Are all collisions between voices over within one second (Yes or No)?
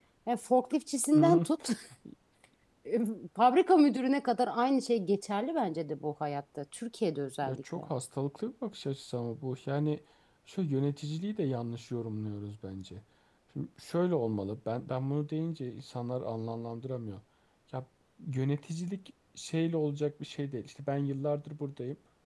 Yes